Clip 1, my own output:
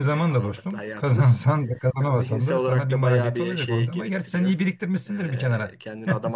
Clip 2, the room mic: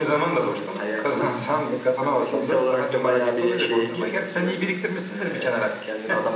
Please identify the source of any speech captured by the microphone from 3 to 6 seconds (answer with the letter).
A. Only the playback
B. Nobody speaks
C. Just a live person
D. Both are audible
A